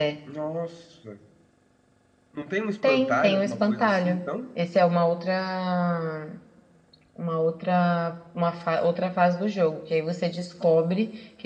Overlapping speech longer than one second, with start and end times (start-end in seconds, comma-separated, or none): 2.8-4.2